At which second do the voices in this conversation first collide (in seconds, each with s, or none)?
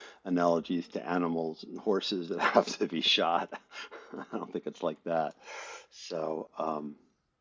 none